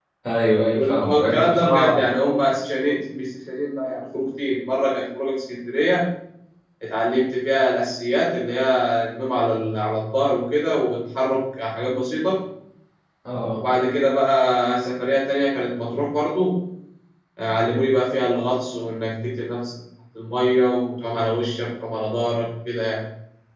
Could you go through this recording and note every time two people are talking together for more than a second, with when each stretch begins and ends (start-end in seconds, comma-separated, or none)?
0.7-2.1